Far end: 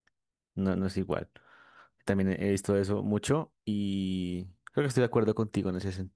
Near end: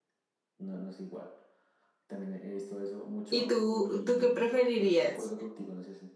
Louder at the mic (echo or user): user